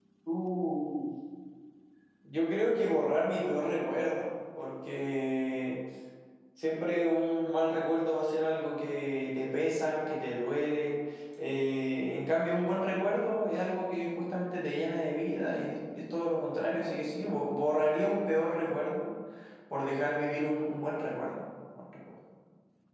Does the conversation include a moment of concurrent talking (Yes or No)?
No